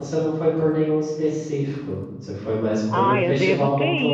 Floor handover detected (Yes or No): Yes